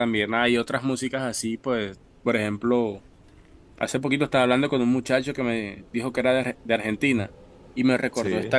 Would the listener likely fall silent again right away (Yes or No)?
Yes